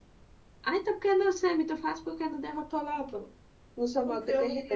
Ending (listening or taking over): taking over